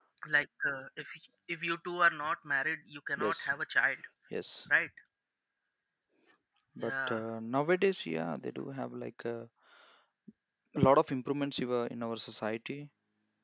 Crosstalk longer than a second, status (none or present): none